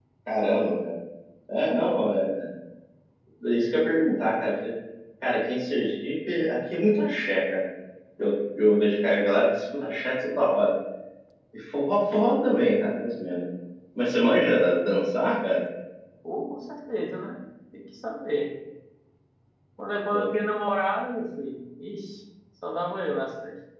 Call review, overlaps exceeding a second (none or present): none